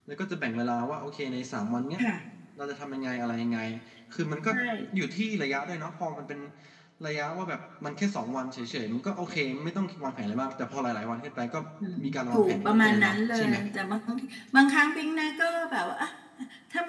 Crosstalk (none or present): present